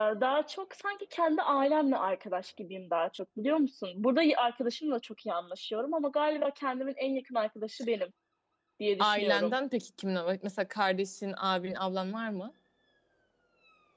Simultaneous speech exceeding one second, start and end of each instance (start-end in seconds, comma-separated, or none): none